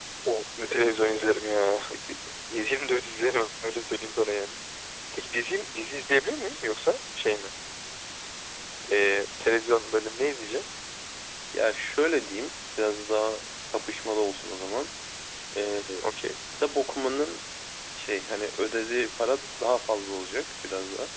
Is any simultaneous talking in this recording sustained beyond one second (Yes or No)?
No